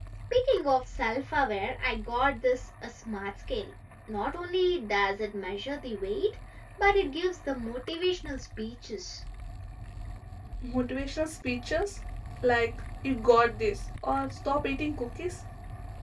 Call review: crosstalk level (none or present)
none